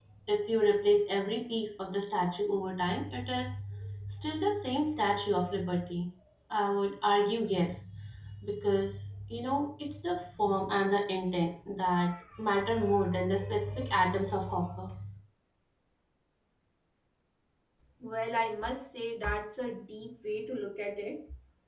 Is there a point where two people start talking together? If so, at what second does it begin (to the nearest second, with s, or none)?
none